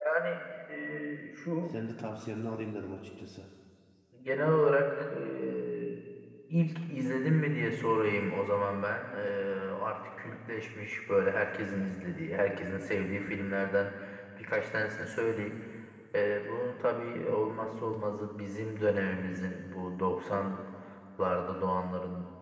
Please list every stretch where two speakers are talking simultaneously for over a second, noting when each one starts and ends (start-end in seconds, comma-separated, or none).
none